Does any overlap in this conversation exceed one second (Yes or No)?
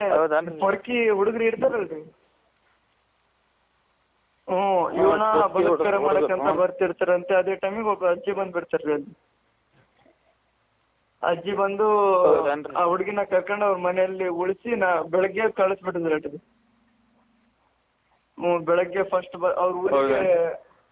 Yes